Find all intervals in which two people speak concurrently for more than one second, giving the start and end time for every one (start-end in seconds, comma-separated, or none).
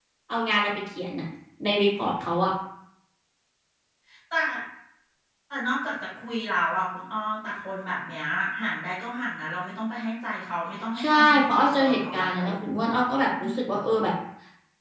11.0-12.5